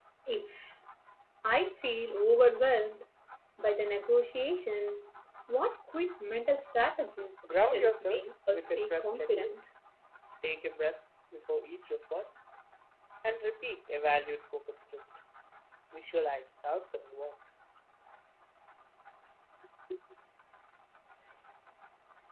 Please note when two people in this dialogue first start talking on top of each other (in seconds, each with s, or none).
7.7 s